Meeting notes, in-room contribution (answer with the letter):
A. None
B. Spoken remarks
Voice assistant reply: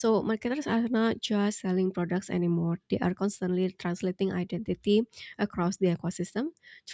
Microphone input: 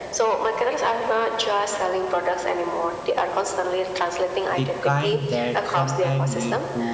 B